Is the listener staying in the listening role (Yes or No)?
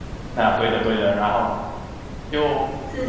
Yes